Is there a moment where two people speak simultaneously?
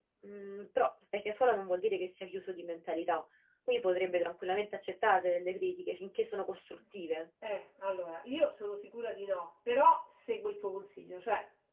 No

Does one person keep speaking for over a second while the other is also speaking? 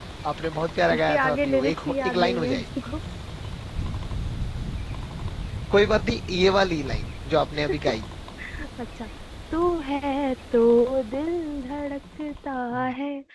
Yes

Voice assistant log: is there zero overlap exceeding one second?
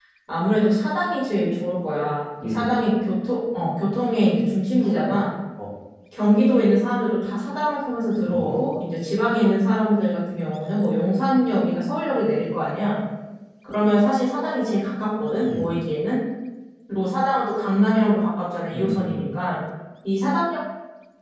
Yes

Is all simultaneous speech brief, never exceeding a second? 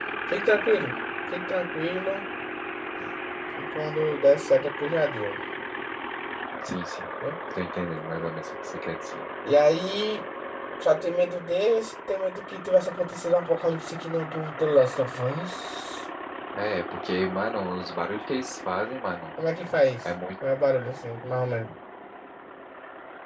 Yes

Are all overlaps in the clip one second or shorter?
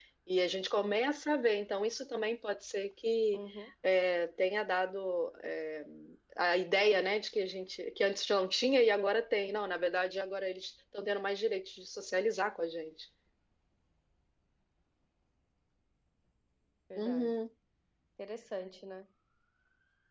Yes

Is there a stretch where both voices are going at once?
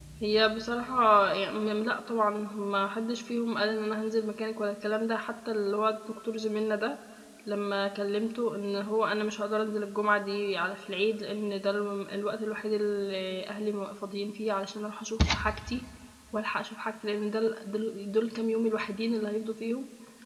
No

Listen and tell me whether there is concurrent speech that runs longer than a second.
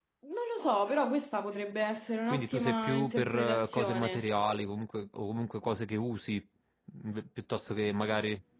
Yes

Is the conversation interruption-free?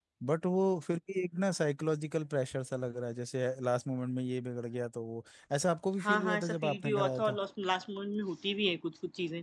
No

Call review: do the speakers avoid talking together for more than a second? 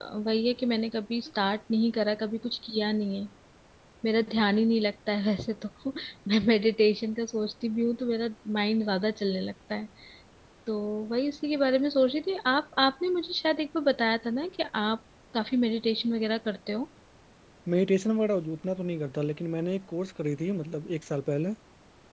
Yes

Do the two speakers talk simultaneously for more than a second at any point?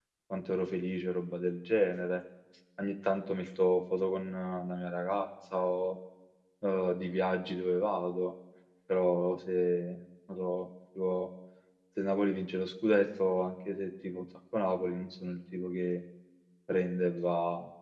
No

